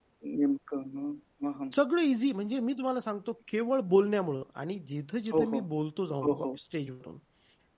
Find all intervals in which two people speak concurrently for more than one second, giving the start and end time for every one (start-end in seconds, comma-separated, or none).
none